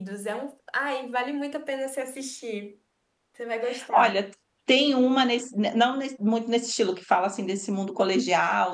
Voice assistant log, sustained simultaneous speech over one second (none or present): none